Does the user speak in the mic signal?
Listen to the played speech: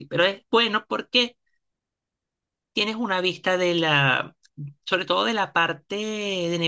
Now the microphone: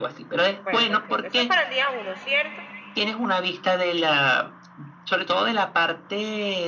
Yes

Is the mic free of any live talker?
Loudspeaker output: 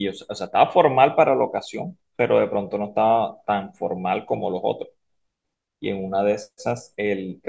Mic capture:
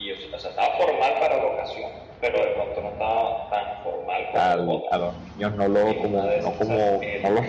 No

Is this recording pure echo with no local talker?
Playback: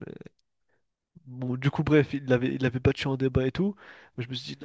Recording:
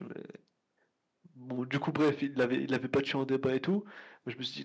Yes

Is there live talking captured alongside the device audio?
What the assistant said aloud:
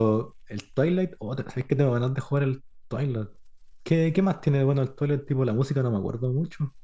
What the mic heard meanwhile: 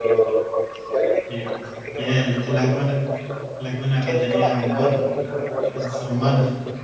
Yes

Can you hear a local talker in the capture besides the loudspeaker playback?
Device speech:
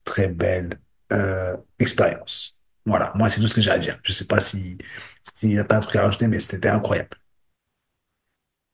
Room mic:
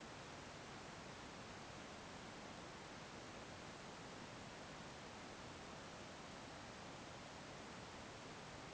No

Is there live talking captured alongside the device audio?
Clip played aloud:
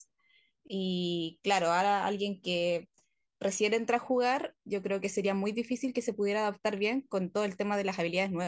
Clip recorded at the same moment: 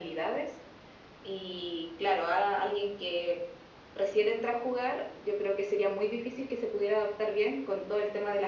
No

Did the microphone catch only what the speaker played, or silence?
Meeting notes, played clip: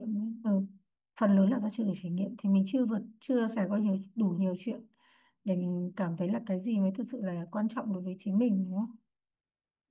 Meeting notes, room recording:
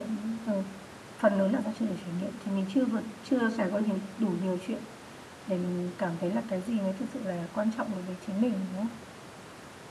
Yes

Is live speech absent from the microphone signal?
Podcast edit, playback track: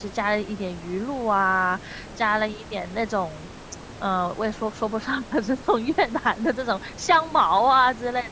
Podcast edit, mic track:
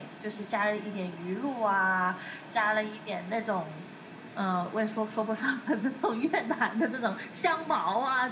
Yes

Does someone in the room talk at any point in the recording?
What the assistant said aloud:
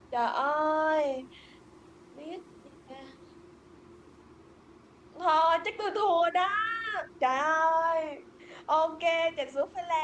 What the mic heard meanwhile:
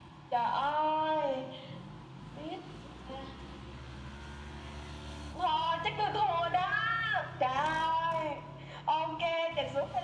No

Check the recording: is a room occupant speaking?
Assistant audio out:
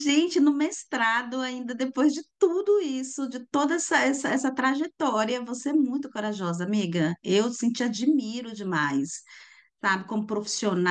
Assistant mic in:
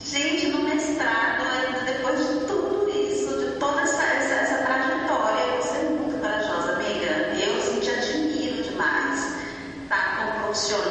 No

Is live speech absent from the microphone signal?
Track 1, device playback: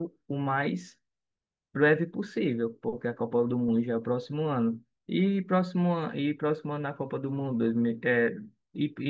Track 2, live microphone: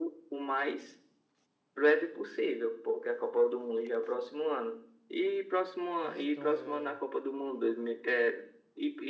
No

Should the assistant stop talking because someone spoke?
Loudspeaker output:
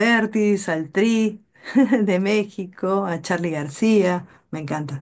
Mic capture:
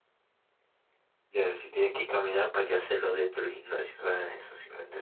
Yes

